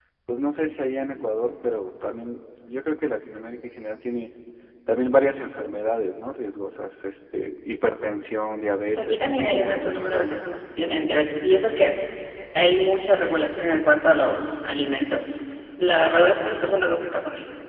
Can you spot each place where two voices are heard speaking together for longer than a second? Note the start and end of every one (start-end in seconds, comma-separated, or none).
8.9-10.5